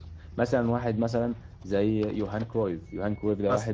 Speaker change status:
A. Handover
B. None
B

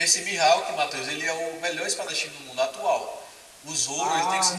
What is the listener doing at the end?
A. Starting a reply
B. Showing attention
A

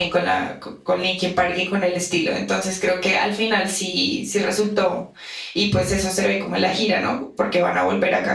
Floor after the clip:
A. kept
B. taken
A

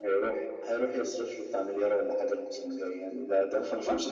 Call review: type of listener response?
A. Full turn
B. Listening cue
A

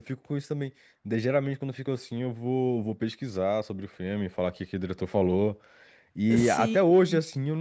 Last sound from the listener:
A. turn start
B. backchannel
B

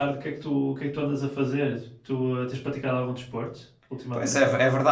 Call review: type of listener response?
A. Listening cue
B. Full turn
B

